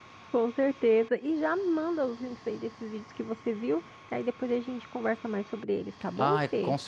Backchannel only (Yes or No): No